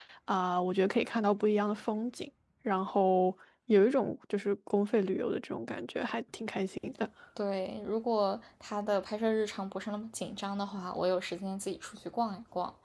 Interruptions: none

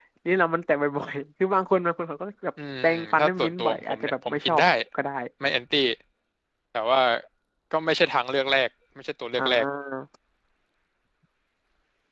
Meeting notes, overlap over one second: present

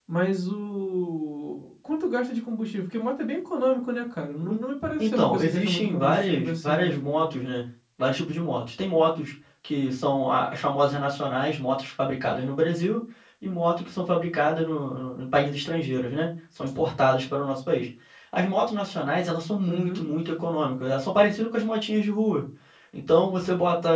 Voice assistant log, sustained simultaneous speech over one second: present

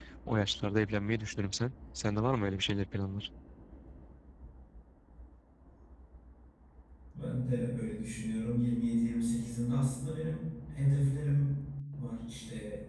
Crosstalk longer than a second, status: none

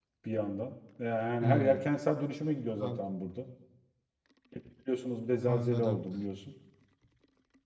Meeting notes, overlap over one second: none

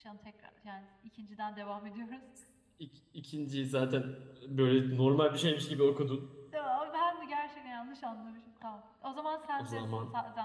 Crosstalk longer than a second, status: none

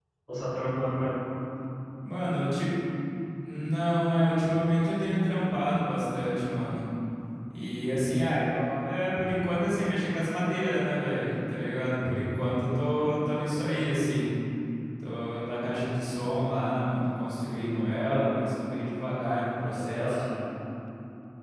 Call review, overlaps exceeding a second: none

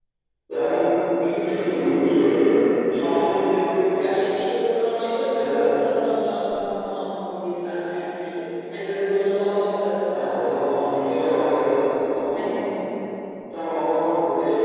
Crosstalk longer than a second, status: none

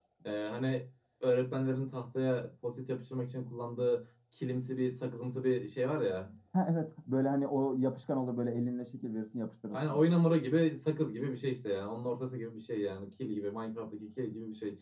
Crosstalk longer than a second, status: none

